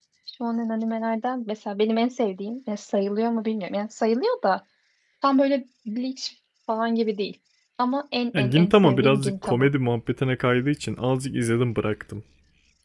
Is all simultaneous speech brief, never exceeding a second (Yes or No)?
No